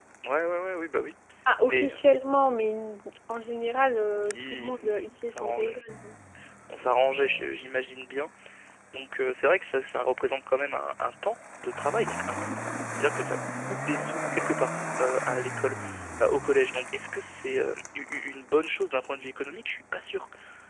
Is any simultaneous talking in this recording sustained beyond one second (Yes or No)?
Yes